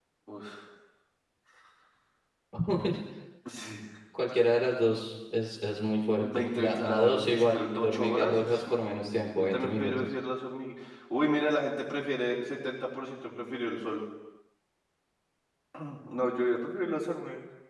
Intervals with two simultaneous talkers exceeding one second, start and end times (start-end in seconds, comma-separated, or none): 6.2-10.1